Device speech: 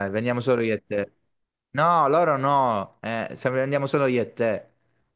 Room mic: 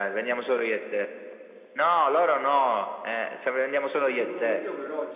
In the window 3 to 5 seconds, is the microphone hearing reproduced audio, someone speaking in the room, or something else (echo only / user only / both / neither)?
both